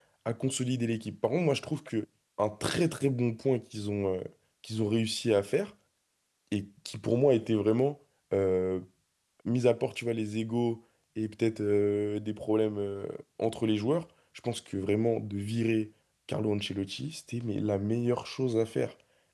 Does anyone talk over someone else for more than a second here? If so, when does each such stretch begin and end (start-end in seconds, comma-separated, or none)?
none